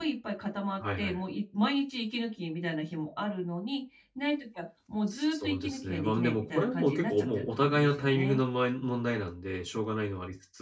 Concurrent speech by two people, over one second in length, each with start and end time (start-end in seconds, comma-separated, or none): 5.3-8.4